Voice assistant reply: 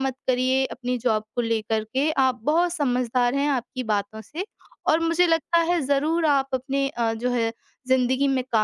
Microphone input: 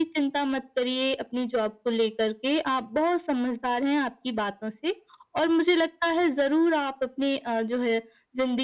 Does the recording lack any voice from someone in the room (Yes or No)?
Yes